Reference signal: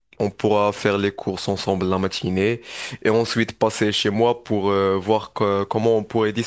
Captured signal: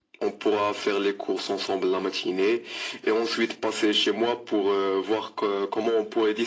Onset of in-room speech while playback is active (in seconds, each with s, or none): none